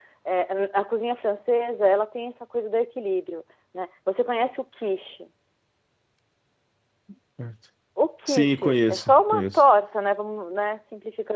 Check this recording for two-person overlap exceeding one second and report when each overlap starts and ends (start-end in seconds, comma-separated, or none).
8.3-9.6